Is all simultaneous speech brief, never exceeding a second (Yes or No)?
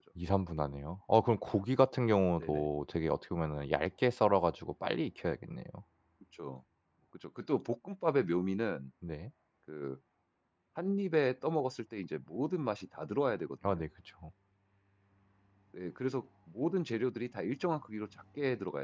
Yes